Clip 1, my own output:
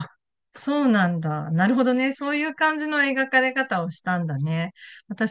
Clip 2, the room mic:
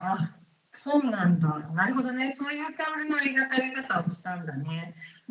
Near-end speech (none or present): none